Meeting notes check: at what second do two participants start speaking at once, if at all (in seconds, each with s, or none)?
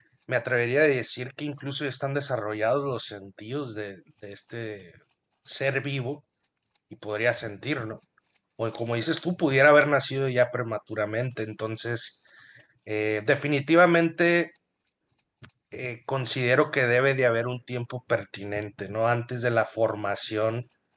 none